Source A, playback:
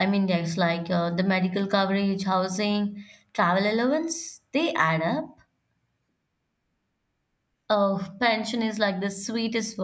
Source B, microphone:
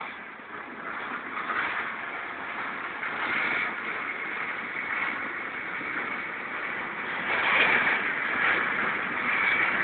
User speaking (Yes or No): No